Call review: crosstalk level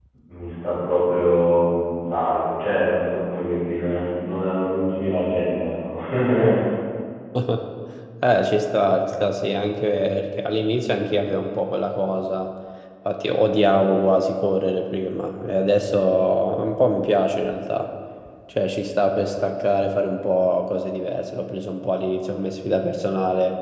none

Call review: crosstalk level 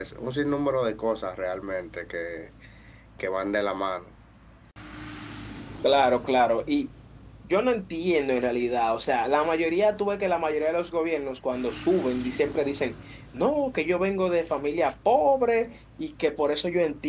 none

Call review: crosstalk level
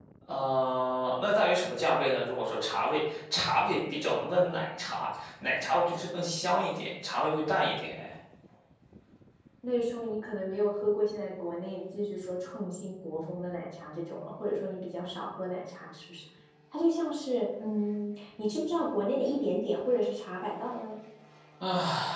none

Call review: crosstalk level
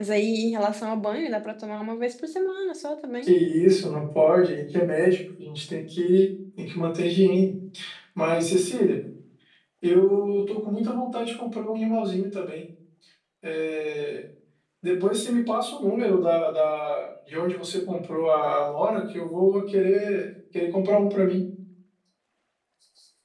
none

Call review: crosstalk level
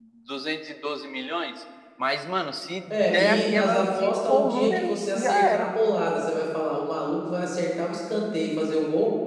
present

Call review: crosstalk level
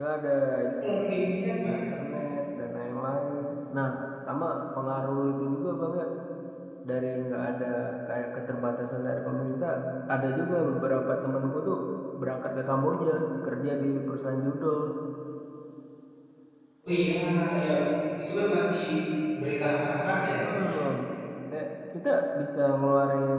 none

